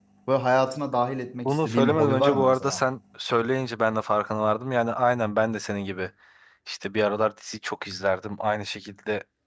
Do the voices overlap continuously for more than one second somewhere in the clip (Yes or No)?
Yes